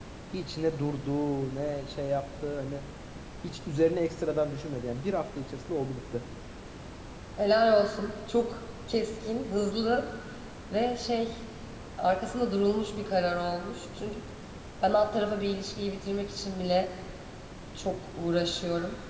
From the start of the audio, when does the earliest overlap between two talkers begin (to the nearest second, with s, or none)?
none